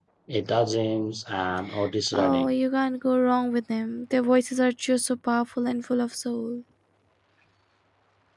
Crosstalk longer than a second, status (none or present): none